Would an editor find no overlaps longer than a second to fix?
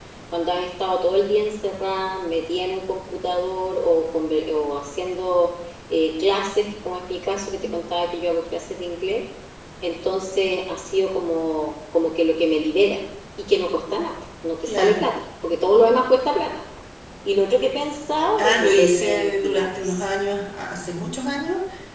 No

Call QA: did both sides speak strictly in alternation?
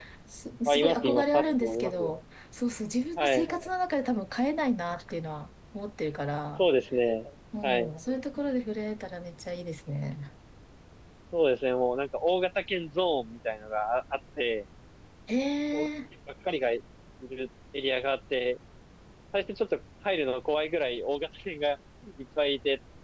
No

